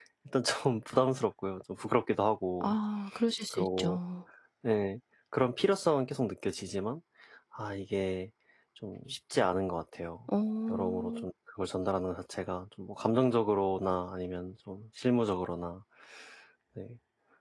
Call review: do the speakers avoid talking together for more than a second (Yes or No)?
Yes